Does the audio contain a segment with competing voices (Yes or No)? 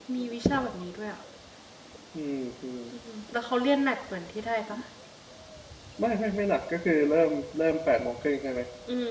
No